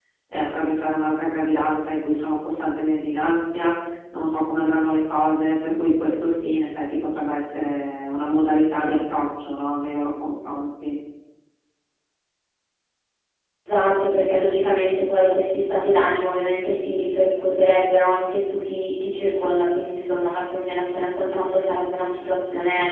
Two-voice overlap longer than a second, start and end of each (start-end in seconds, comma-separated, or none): none